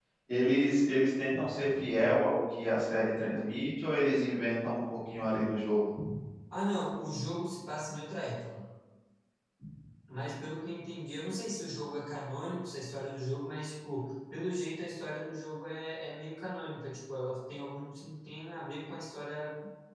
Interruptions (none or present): none